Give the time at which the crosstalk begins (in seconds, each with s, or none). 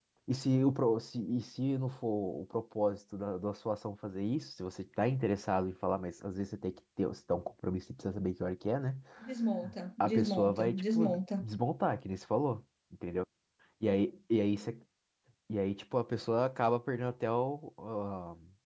10.0 s